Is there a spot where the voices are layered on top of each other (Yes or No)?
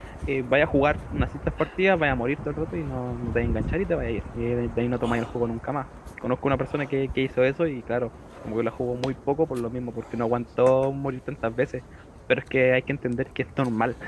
No